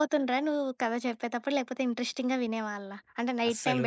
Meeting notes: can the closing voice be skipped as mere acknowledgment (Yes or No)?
No